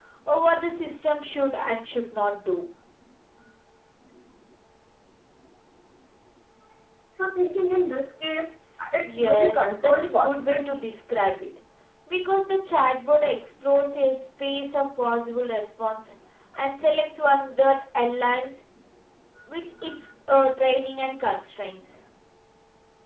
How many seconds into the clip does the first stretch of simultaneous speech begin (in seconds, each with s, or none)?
9.0 s